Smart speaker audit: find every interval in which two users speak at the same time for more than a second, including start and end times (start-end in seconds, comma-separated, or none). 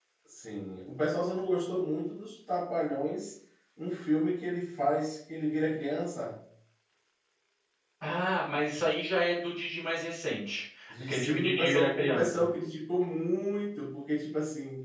10.9-12.5